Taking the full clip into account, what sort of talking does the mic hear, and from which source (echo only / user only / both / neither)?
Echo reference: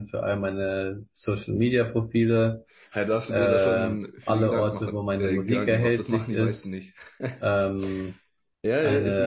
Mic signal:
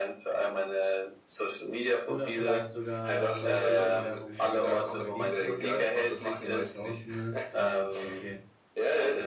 both